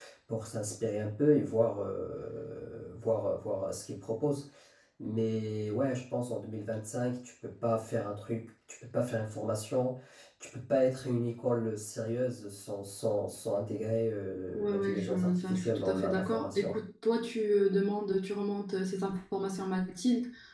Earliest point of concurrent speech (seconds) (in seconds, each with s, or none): 14.5 s